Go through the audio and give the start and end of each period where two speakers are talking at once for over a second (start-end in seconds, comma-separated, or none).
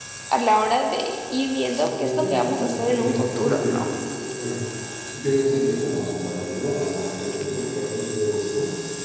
1.7-3.9